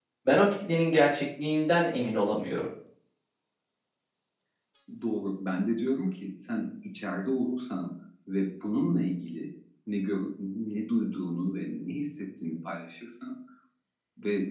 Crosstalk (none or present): none